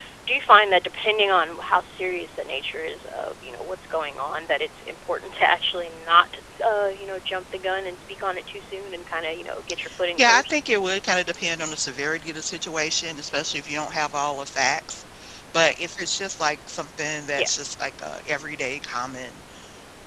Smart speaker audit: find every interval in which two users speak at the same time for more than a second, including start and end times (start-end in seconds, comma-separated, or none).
none